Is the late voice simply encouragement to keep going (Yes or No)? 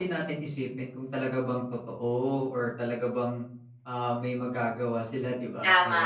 No